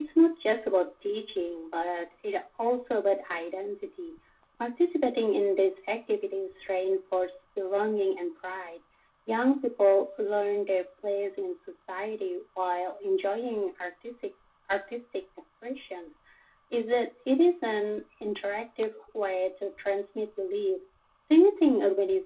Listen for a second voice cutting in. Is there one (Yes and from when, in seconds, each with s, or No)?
No